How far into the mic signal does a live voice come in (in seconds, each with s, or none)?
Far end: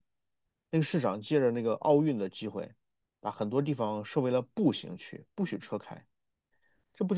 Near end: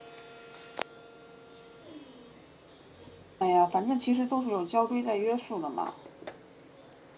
3.4 s